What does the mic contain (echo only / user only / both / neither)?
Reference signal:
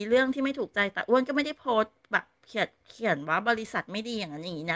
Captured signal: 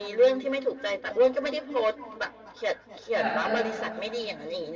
both